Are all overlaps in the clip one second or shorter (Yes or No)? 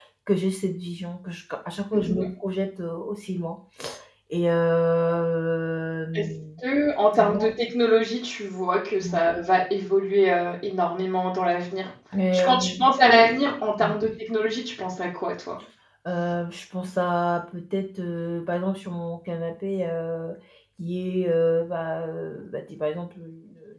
Yes